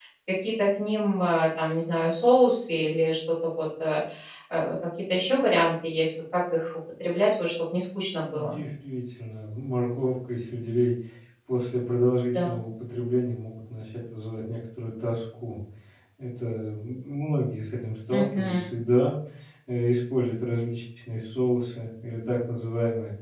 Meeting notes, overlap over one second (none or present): none